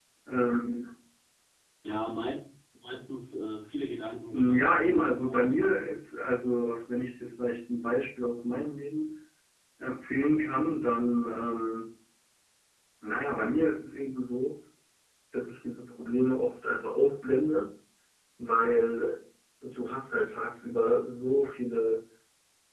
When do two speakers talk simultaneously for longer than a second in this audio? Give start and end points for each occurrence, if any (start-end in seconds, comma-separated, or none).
4.3-5.5